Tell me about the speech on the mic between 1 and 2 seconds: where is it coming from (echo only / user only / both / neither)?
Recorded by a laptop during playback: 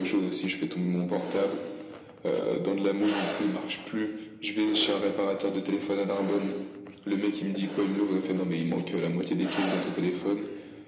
echo only